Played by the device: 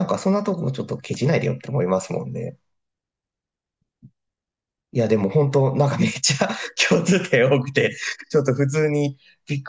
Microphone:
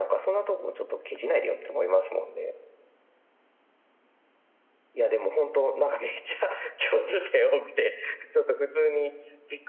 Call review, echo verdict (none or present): present